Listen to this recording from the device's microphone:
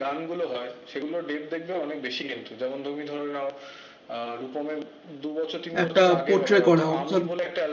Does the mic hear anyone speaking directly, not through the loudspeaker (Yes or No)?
Yes